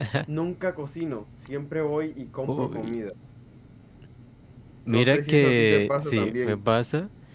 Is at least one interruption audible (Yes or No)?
Yes